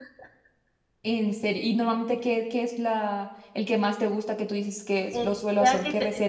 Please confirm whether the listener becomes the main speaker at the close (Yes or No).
Yes